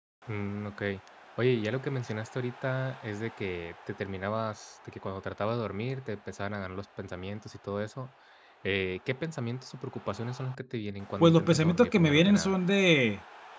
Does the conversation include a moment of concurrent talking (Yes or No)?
Yes